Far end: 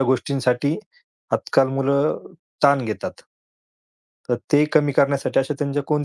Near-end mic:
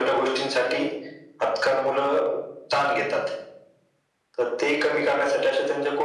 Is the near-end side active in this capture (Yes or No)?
No